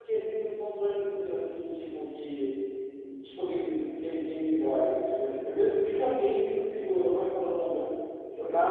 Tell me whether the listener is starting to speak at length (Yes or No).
Yes